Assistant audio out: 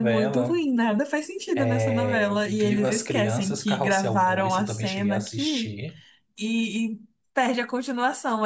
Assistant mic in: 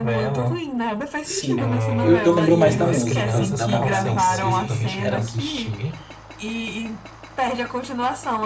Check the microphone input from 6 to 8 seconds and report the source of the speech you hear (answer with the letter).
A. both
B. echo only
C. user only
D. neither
B